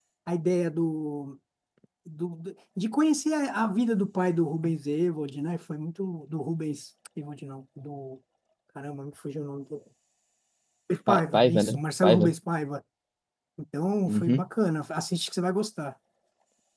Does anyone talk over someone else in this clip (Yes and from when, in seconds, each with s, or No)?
Yes, from 11.1 s